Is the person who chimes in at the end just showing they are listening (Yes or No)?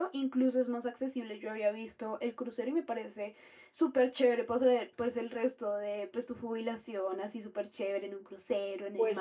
No